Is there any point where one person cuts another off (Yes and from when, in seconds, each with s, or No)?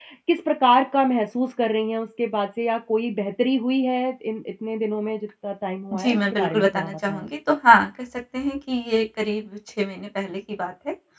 Yes, from 5.9 s